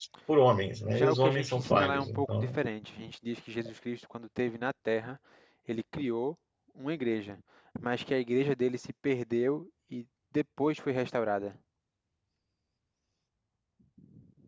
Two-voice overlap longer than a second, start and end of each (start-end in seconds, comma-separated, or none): 0.9-2.6